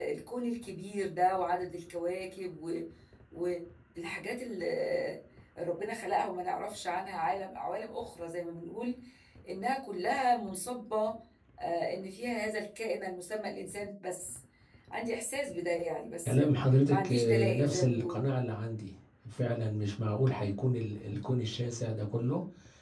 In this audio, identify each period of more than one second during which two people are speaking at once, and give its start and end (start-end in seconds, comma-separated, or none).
16.9-18.2